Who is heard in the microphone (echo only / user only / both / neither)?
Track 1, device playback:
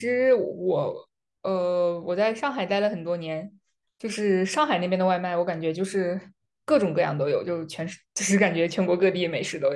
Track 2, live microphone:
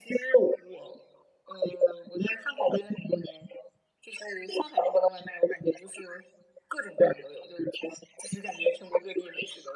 echo only